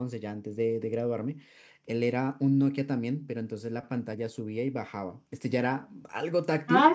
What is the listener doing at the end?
taking over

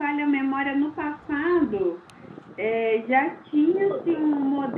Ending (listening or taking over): listening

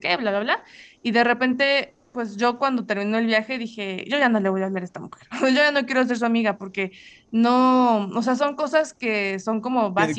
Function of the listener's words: taking over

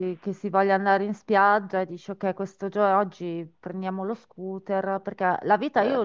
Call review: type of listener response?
listening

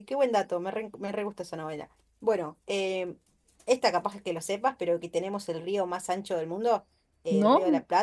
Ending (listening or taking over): listening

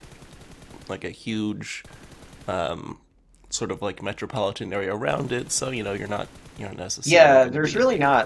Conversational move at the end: taking over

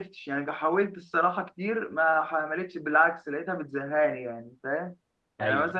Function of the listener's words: listening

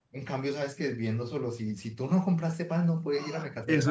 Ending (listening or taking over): taking over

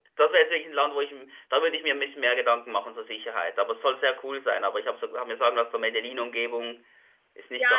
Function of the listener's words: taking over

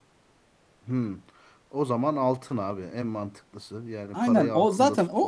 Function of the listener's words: taking over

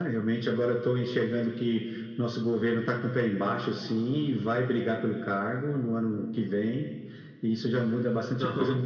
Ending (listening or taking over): listening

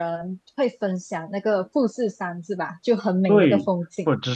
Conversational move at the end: taking over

